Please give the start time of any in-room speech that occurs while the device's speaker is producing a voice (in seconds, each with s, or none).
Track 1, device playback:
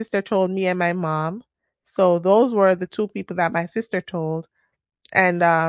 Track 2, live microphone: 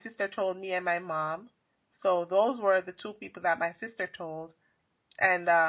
none